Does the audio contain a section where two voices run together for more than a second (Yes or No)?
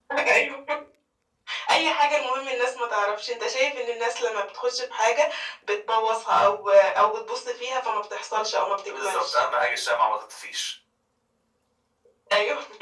No